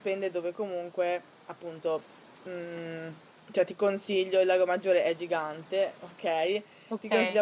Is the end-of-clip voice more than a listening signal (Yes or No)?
No